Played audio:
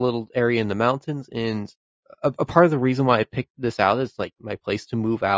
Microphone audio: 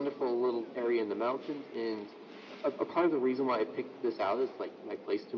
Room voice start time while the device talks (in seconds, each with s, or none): none